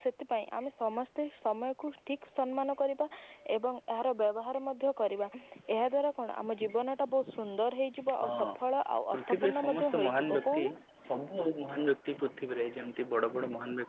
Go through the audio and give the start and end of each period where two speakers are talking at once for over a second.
9.1-10.6

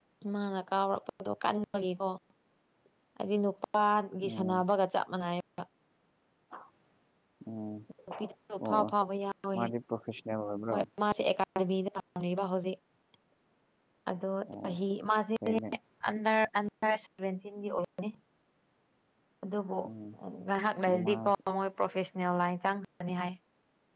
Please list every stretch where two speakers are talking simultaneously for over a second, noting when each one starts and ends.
none

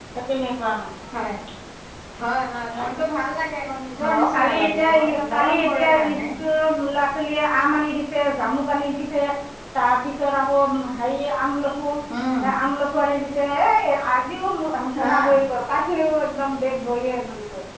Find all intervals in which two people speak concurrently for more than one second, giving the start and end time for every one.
4.1-6.2

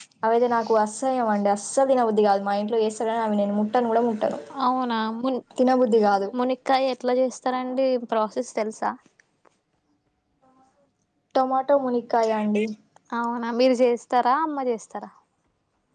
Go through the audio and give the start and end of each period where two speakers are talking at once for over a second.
none

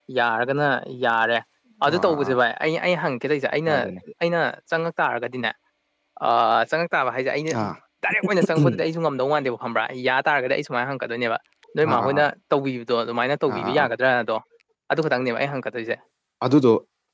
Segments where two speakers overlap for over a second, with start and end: none

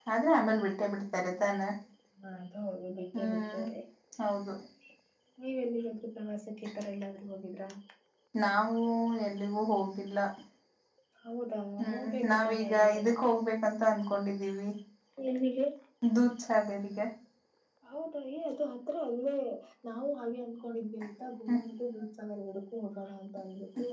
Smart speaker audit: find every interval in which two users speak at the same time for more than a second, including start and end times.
11.8-13.0

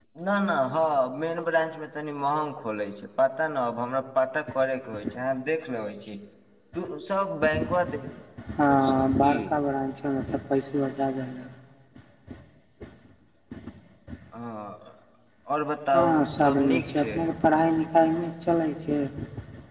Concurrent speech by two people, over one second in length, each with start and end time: 15.9-17.2

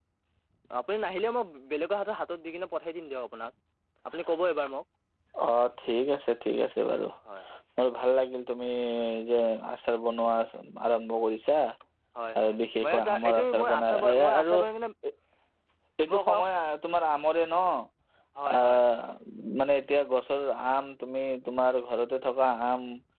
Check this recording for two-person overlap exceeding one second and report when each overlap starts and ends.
12.4-14.6

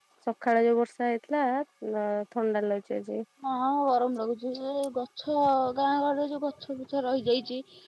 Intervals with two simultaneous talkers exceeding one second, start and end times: none

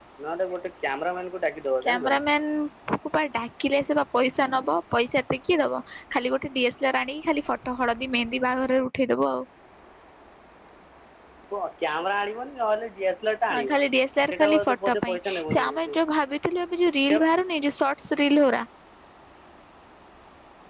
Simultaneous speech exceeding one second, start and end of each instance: 14.3-15.9

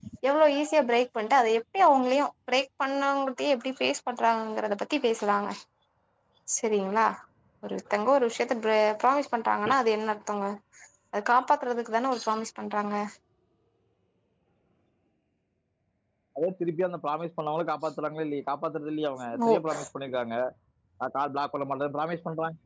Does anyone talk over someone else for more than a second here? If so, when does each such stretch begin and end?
none

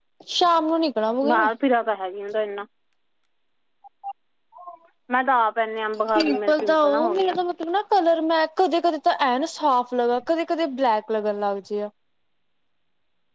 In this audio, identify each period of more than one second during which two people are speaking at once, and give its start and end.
6.2-7.3

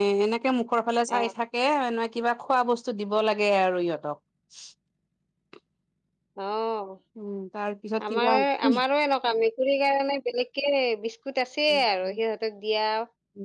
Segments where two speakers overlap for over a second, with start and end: none

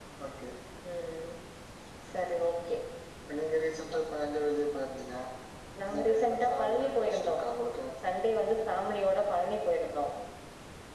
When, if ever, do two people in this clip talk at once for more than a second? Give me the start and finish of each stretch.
5.9-7.3

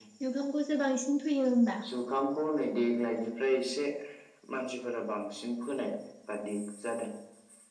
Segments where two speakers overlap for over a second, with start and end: none

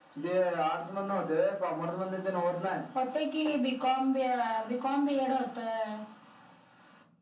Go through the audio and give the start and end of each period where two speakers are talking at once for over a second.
none

